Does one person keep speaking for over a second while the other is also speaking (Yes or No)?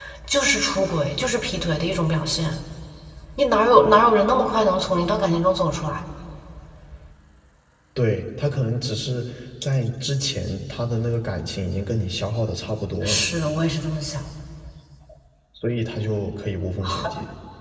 No